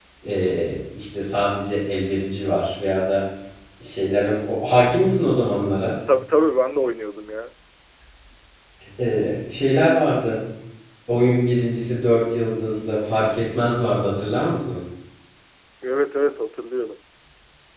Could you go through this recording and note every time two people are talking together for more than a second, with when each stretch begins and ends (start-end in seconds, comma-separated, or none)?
none